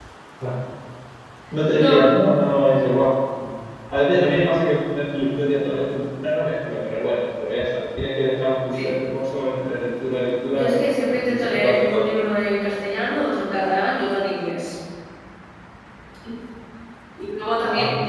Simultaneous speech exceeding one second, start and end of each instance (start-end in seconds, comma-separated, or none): 10.5-12.0